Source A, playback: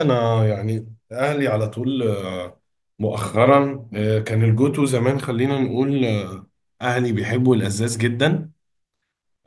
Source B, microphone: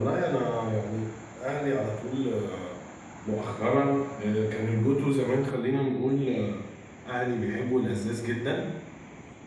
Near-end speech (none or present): none